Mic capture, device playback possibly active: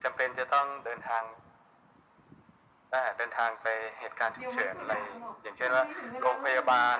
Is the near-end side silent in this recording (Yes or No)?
No